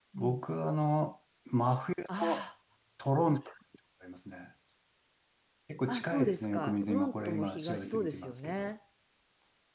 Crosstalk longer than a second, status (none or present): present